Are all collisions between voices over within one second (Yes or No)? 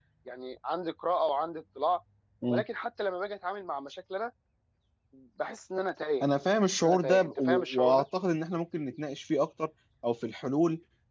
No